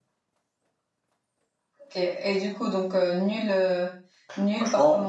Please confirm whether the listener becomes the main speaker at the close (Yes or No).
Yes